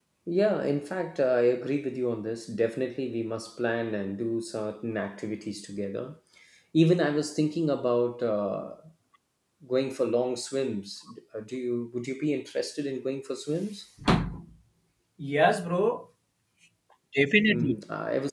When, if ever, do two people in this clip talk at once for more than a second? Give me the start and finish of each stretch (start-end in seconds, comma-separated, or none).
none